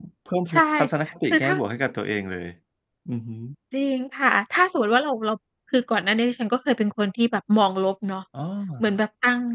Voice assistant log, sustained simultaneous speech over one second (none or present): none